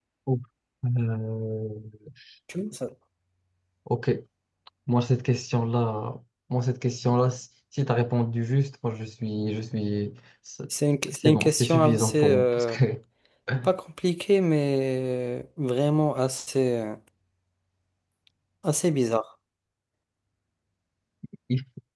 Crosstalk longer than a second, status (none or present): present